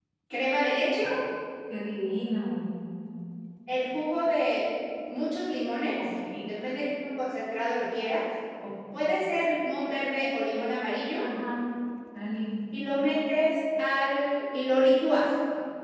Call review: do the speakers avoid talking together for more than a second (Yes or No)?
Yes